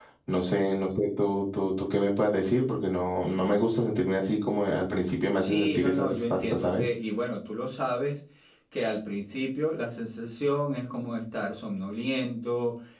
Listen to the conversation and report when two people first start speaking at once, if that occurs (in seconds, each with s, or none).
5.4 s